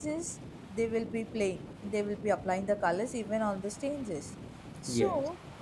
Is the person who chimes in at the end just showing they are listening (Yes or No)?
Yes